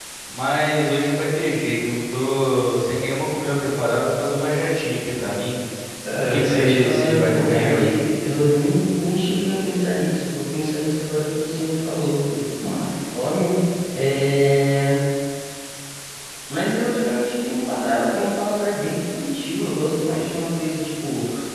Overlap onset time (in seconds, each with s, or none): 6.3 s